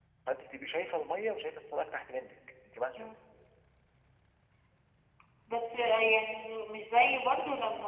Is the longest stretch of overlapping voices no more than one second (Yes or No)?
Yes